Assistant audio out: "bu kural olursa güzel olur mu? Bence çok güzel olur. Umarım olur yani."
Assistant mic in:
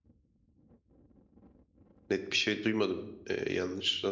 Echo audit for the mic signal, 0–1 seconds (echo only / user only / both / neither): neither